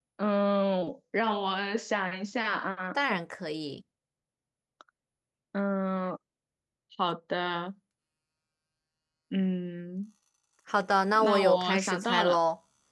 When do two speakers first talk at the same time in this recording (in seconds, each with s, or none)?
11.2 s